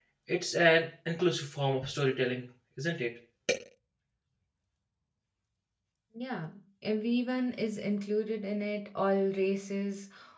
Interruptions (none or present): none